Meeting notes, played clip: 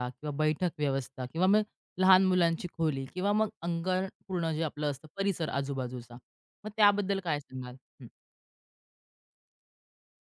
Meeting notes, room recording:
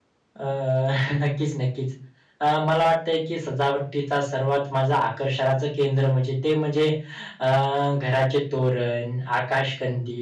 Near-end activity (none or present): present